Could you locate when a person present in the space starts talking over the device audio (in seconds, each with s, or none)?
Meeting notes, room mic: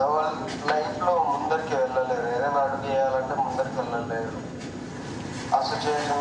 none